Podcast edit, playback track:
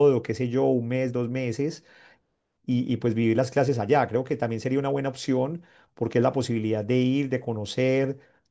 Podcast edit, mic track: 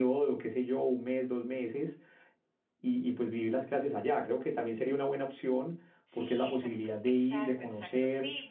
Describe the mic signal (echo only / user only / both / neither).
both